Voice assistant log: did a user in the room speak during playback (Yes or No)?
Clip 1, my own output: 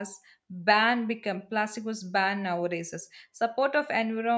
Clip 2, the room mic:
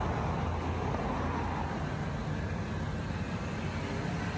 No